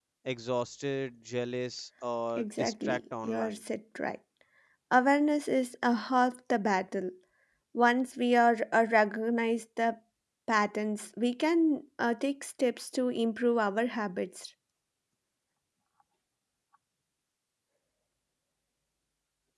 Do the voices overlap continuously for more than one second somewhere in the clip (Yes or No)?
Yes